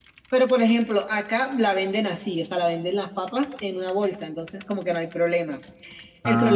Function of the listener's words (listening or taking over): listening